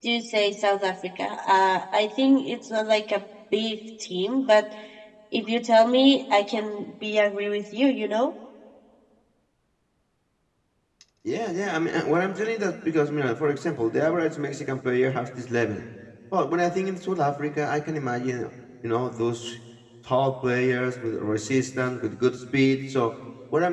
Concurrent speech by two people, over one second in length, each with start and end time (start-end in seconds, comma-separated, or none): none